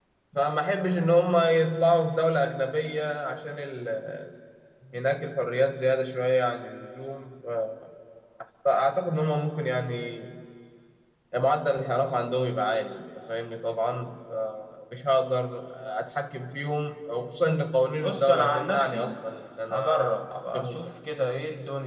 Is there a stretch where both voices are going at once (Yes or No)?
Yes